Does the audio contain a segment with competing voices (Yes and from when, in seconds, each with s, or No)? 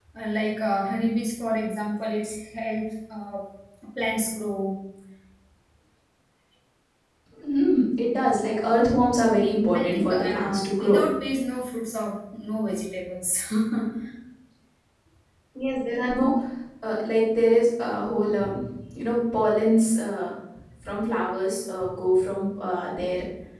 Yes, from 9.7 s